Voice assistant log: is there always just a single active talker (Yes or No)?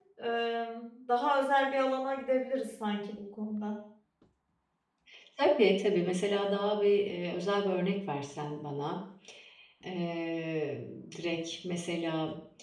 Yes